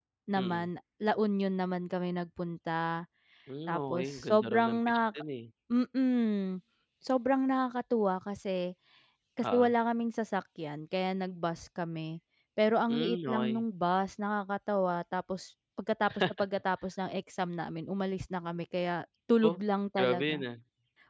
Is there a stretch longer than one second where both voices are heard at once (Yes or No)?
Yes